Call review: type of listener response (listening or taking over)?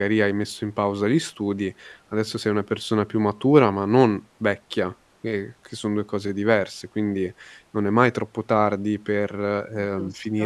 listening